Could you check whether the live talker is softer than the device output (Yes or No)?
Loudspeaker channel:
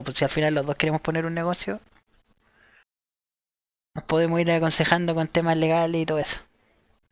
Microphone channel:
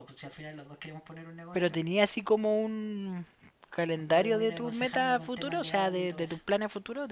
No